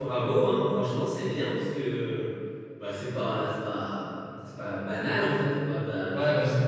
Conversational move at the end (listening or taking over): taking over